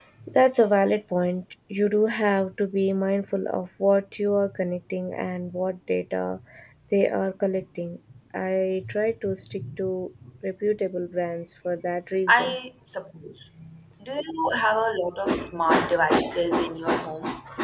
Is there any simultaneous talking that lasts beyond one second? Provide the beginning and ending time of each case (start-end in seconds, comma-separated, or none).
none